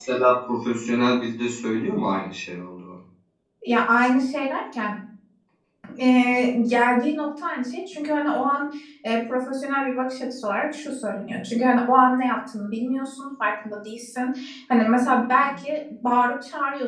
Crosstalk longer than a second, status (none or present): none